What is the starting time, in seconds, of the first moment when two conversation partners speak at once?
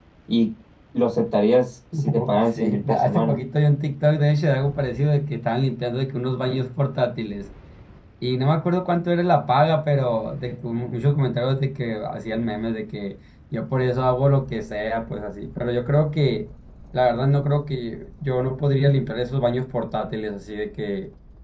1.9 s

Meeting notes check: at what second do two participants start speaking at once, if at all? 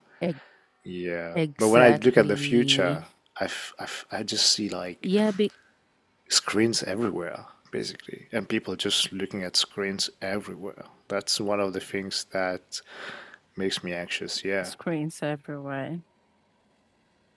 1.3 s

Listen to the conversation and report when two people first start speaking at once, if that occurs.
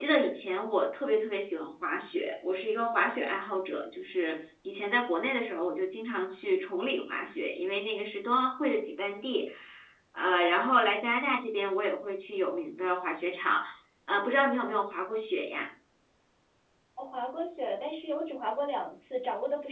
none

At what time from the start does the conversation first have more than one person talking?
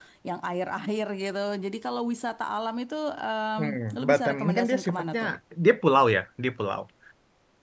3.6 s

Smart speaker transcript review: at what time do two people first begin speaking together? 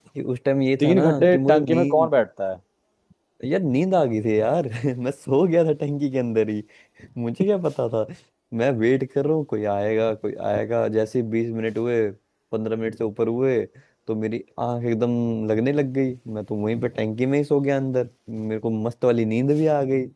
0.8 s

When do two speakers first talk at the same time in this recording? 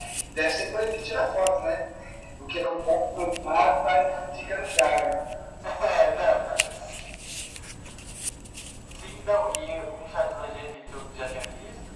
none

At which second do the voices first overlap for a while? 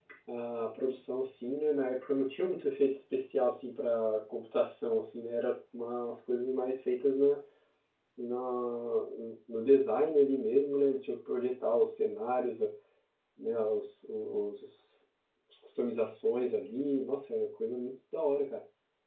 none

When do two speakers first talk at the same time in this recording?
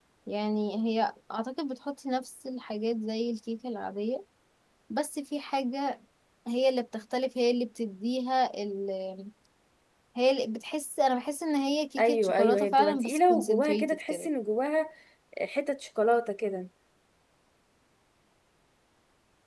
12.0 s

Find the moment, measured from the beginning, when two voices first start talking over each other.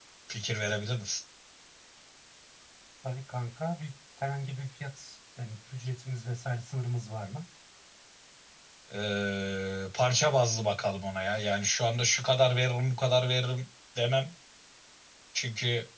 none

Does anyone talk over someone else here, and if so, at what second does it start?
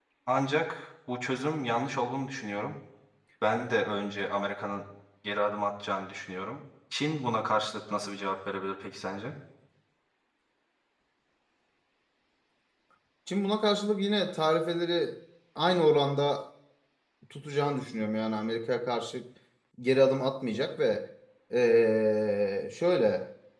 none

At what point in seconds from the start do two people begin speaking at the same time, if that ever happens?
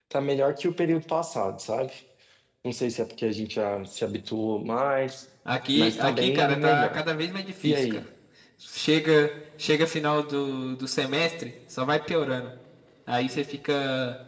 5.8 s

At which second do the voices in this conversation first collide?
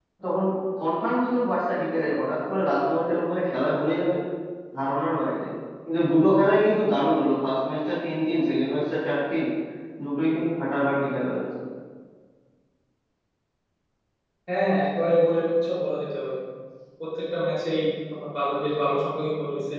none

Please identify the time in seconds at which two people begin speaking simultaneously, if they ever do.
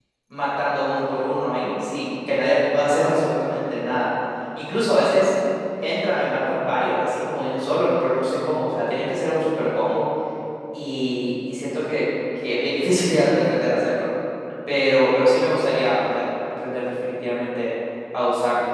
none

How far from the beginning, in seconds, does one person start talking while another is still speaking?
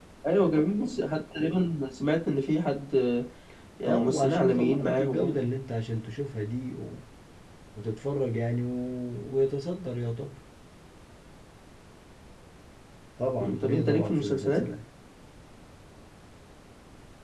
3.8 s

